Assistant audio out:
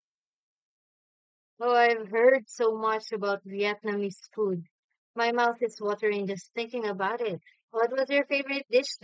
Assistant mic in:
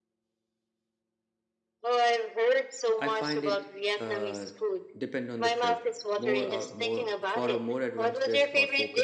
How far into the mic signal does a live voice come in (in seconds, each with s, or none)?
3.0 s